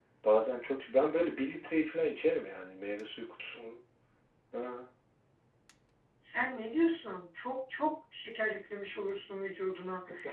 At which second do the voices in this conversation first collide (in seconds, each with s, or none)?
none